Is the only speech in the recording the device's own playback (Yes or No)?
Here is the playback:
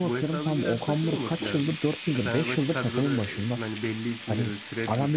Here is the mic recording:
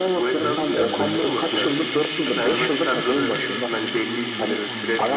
No